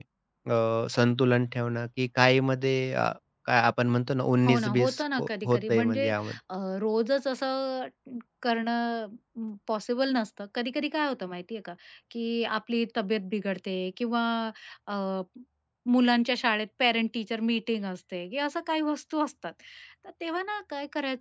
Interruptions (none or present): present